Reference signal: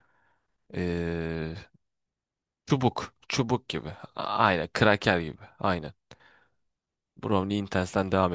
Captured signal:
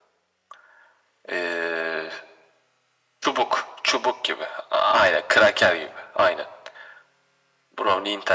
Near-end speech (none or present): none